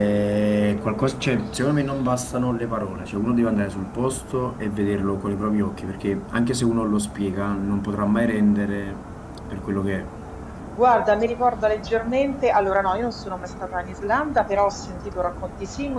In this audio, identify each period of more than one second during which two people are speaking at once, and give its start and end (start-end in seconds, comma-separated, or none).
none